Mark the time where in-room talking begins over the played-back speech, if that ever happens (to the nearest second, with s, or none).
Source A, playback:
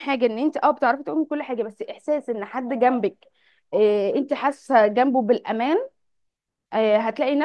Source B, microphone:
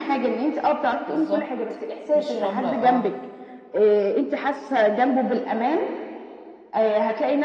1 s